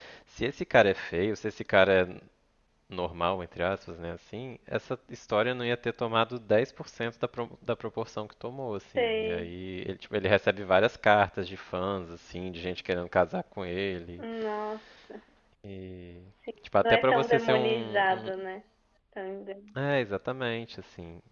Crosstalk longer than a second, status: present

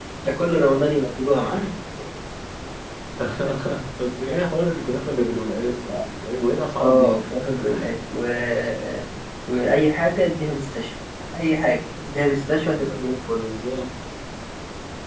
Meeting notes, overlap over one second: none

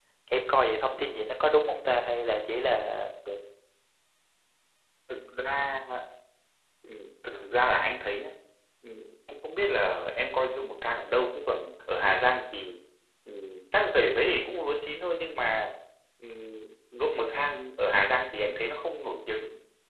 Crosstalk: none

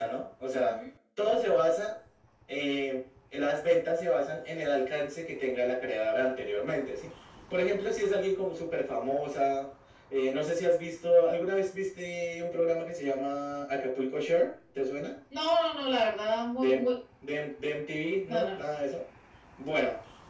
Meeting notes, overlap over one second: none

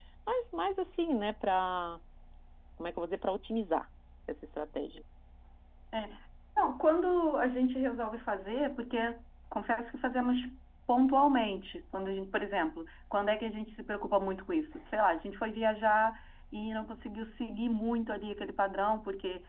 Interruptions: none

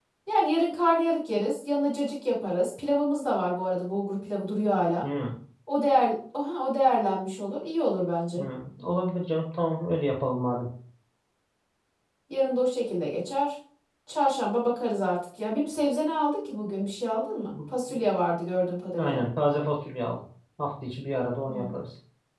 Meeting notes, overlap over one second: none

